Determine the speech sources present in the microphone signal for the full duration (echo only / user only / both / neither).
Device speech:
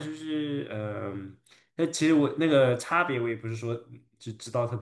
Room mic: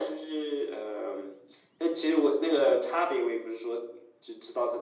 echo only